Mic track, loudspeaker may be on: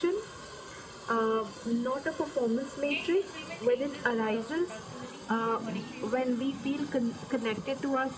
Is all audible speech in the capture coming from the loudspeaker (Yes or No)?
No